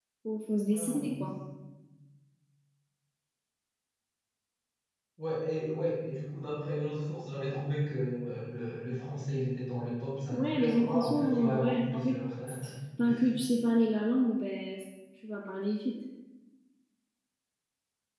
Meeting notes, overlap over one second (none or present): present